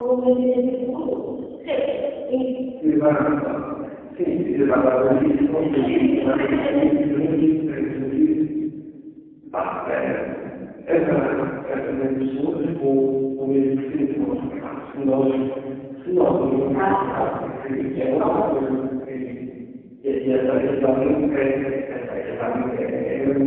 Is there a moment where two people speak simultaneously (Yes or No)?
Yes